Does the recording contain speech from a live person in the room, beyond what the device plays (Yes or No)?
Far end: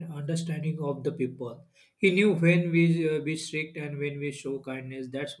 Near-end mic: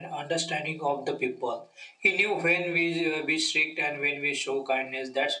No